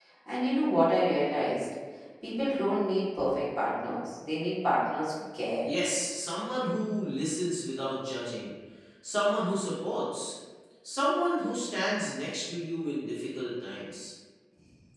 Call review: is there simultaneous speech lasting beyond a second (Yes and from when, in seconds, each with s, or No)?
No